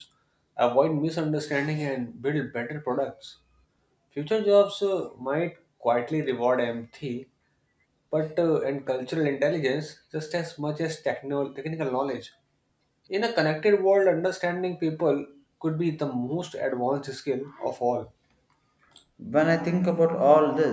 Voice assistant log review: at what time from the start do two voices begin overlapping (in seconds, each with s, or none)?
none